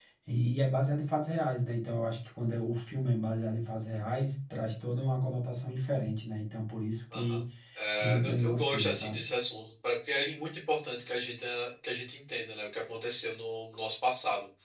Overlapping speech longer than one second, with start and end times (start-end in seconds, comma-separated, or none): 8.0-9.2